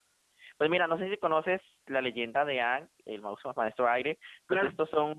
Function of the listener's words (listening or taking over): listening